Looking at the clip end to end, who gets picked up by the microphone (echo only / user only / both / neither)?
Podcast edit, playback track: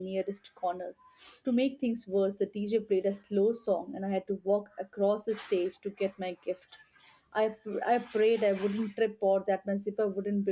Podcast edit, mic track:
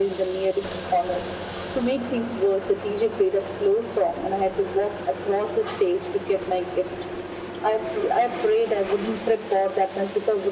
echo only